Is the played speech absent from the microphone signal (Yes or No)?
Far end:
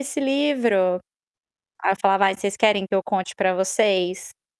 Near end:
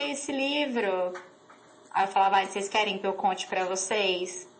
No